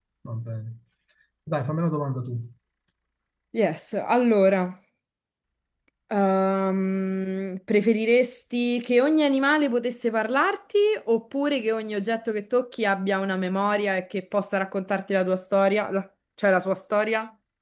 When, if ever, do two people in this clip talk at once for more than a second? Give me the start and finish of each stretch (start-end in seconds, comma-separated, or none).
none